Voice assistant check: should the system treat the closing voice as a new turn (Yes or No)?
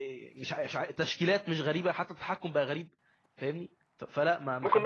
Yes